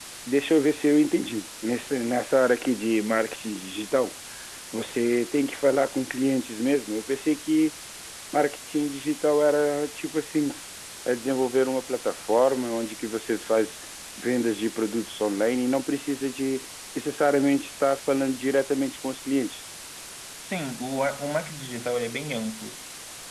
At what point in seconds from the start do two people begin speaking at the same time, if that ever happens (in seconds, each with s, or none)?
none